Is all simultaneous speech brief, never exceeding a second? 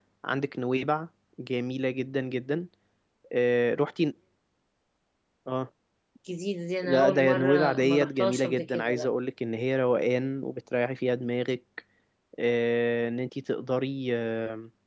No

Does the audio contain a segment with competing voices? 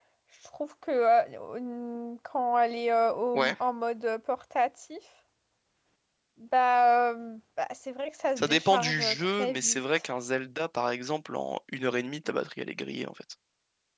Yes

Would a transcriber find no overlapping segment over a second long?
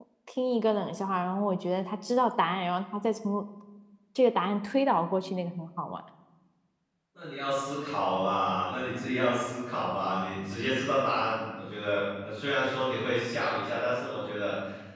Yes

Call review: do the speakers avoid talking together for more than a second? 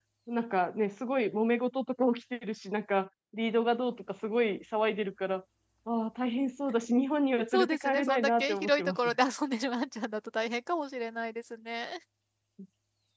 No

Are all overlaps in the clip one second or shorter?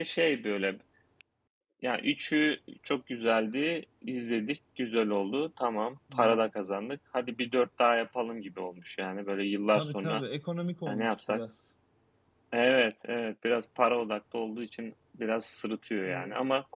Yes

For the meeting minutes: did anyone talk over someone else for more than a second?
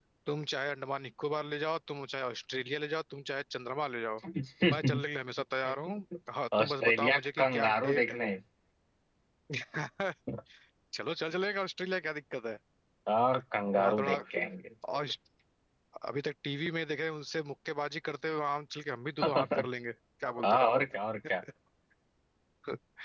Yes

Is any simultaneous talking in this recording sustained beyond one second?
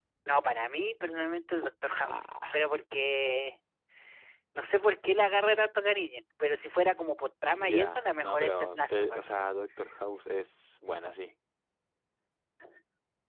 Yes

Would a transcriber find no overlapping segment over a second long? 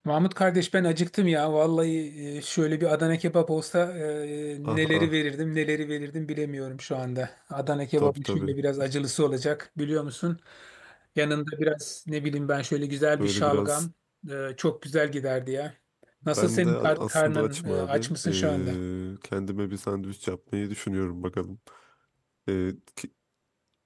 No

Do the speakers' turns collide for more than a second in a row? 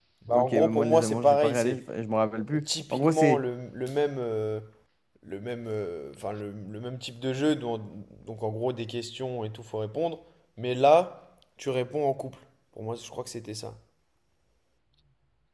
Yes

